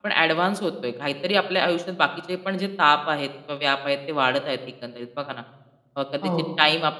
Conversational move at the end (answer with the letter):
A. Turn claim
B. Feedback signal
B